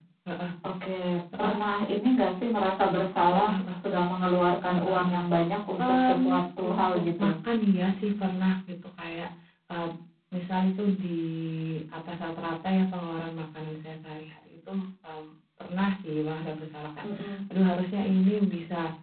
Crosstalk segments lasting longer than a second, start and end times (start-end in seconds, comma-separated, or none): 5.8-7.3